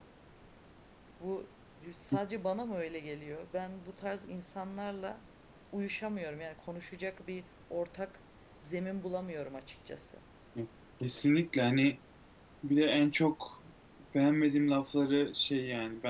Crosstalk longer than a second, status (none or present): none